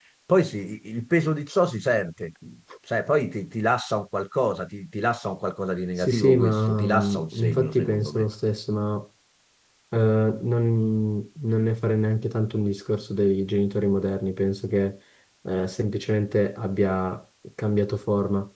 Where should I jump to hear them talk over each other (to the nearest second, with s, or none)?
6 s